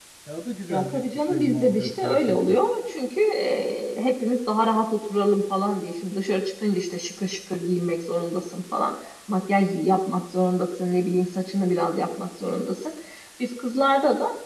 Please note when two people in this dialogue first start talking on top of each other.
0.7 s

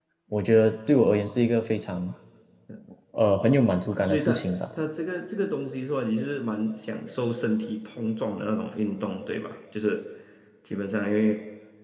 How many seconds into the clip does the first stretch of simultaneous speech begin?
3.2 s

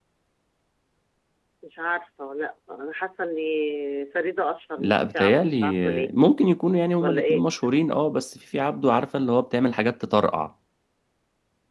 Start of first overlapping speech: 4.8 s

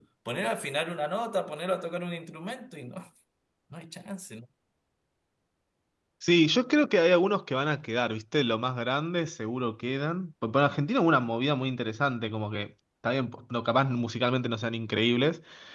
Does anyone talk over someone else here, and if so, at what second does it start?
none

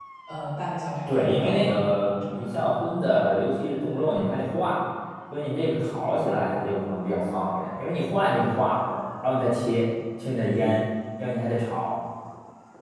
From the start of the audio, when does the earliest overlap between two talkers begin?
1.1 s

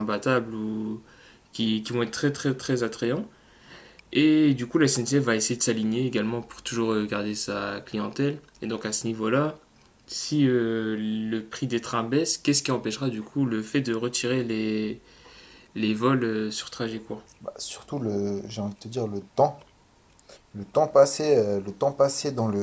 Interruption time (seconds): none

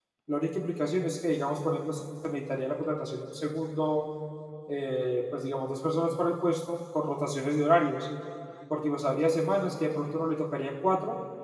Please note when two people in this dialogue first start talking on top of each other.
none

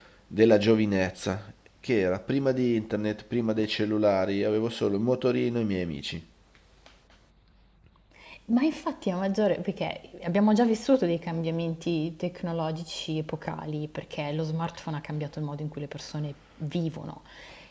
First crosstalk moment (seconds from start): none

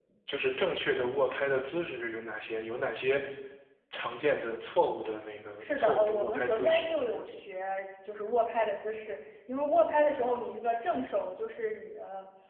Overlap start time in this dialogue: 5.6 s

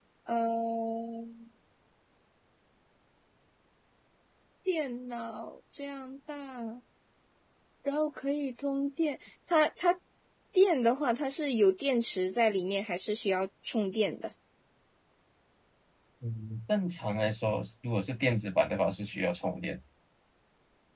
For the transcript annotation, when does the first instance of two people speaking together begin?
none

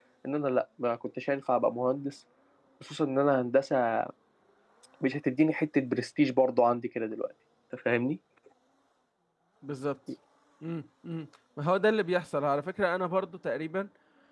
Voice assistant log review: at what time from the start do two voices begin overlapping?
none

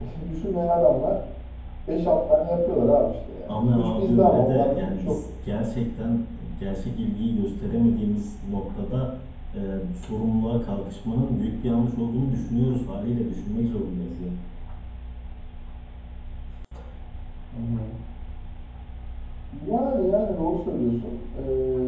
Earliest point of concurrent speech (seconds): 3.5 s

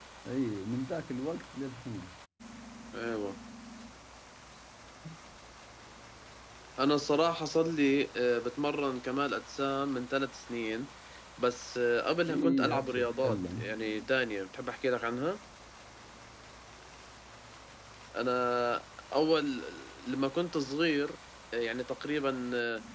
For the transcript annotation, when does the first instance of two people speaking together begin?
12.3 s

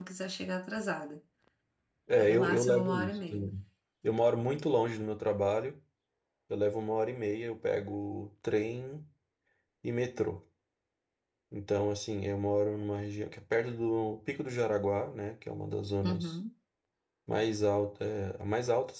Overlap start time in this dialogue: 2.2 s

